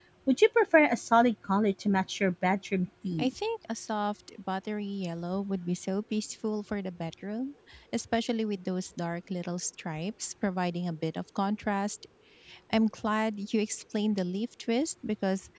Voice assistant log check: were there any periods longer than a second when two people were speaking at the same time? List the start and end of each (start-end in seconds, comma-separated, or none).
none